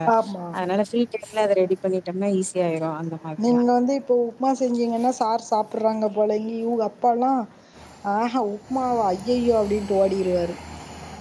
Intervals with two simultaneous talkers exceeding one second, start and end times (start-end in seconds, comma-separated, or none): none